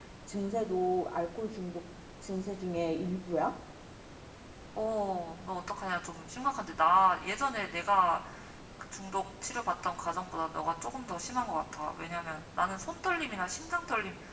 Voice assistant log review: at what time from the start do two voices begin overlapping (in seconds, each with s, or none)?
none